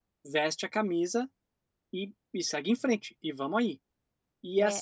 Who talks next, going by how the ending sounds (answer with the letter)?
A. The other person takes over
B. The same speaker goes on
B